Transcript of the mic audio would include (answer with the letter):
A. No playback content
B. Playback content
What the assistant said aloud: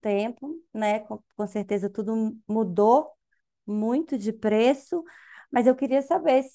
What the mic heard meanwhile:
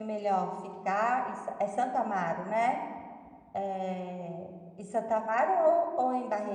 A